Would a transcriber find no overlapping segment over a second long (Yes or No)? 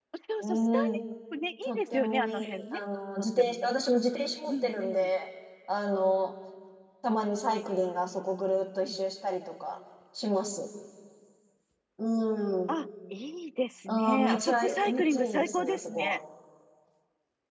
No